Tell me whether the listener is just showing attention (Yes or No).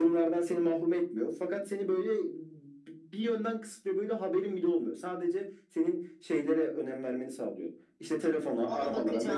Yes